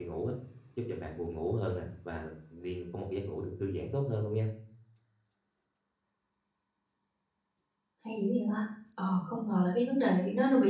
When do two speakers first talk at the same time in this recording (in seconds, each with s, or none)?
none